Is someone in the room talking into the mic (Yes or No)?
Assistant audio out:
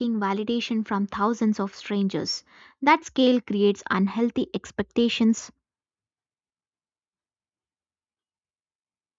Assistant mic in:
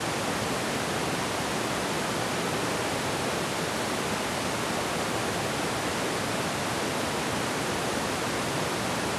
No